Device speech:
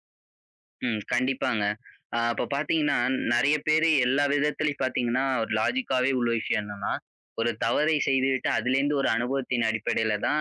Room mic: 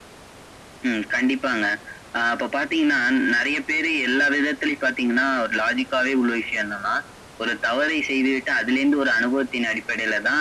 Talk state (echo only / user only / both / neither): echo only